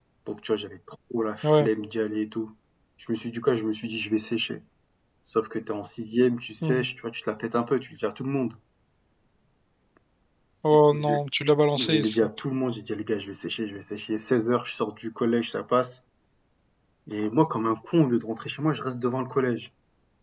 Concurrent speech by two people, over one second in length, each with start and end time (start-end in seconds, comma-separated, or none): none